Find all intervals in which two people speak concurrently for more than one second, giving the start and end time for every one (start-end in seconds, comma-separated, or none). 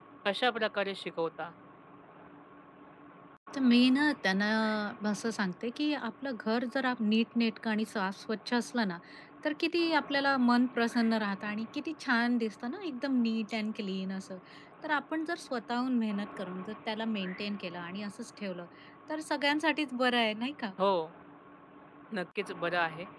none